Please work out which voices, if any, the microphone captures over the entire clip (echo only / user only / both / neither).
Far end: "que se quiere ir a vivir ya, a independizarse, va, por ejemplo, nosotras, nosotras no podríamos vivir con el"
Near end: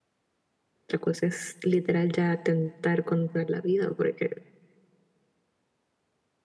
user only